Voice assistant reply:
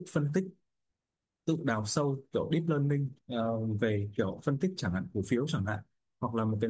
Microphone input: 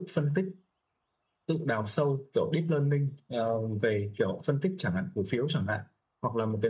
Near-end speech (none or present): none